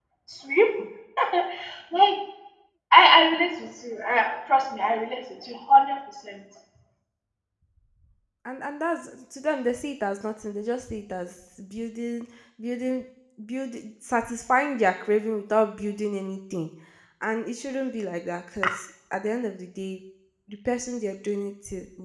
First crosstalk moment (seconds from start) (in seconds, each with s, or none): none